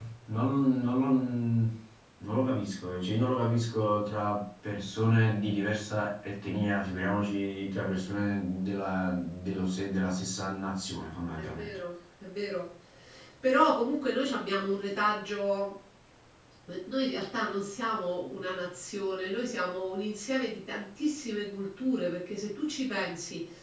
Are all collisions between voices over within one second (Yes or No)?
Yes